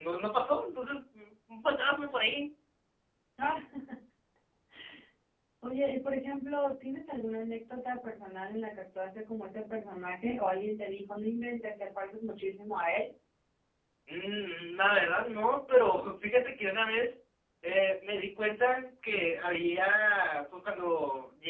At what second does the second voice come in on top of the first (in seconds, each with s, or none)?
none